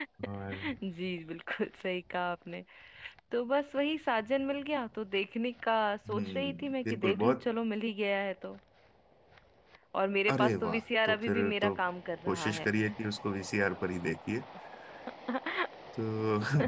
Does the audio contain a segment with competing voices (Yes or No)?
Yes